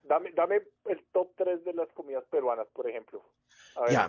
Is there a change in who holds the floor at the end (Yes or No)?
Yes